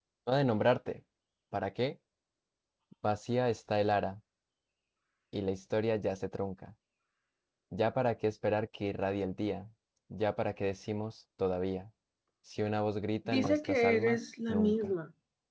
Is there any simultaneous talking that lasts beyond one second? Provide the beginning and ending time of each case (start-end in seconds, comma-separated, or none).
13.2-14.9